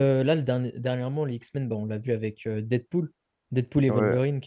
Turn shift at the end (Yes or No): Yes